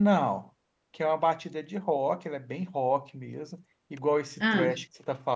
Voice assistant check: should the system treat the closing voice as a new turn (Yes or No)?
No